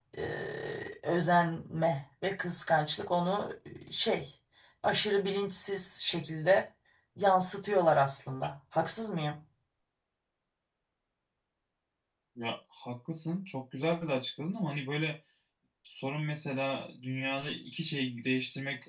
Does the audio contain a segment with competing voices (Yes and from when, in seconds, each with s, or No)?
No